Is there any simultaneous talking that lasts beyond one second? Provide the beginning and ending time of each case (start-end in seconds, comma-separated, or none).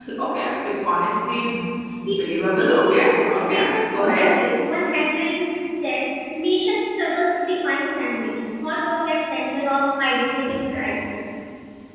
2.5-4.3